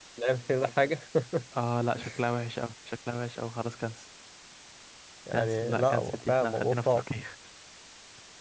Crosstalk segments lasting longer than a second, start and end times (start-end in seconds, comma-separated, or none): 5.3-7.0